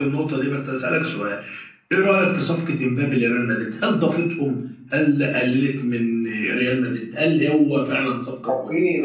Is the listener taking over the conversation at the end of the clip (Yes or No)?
Yes